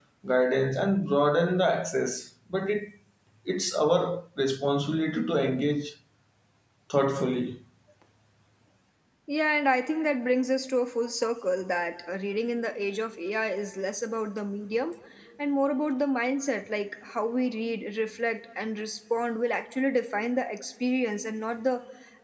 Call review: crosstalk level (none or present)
none